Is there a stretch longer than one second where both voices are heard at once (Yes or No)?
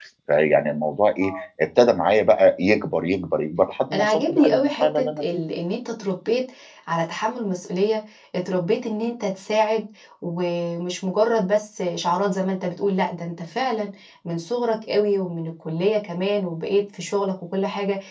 Yes